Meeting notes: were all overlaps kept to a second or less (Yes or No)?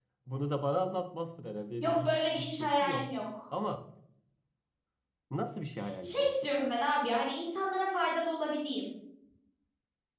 No